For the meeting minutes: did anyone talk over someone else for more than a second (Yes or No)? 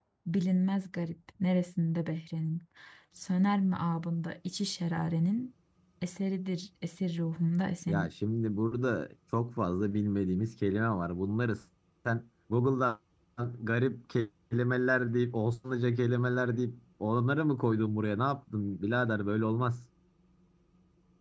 No